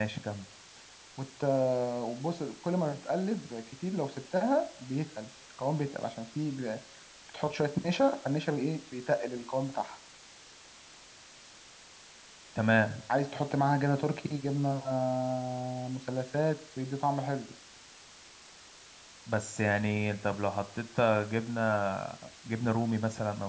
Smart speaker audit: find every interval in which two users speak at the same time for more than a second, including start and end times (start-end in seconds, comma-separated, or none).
none